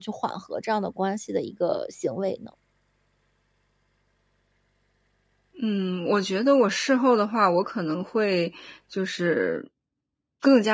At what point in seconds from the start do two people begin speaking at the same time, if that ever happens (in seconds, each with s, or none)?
none